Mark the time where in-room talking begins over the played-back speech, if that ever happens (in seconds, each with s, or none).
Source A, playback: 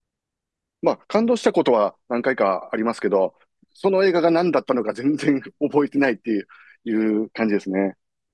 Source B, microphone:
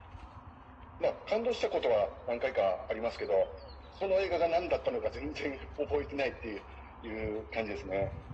none